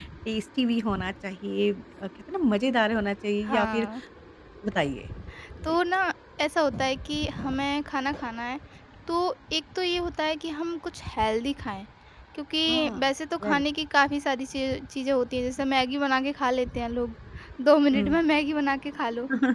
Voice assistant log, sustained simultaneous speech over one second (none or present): none